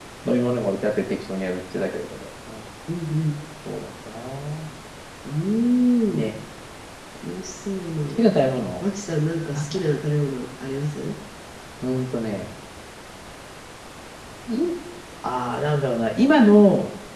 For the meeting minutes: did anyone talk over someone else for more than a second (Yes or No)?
No